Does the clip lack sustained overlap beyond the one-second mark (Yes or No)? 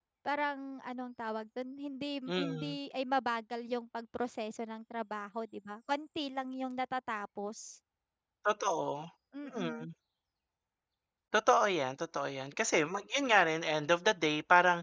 Yes